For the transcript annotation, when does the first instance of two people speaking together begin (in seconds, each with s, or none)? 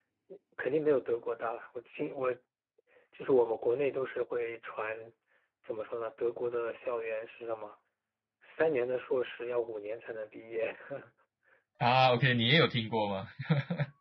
none